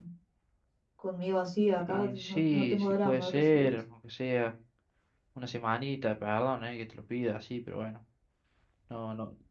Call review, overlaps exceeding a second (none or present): present